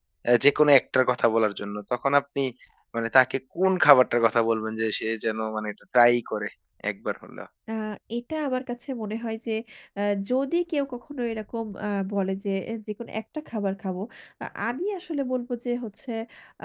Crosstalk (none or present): none